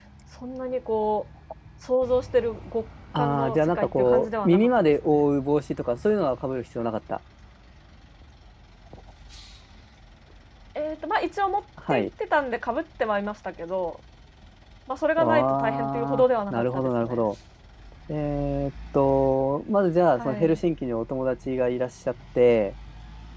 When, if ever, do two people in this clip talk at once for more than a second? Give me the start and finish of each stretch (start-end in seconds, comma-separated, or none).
3.1-5.2, 15.2-17.2